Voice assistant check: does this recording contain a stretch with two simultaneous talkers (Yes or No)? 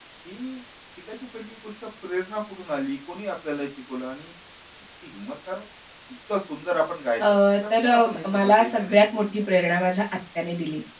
Yes